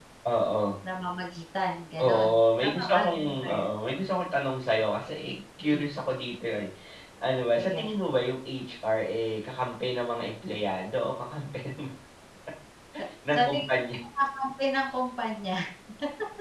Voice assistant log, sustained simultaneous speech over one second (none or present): present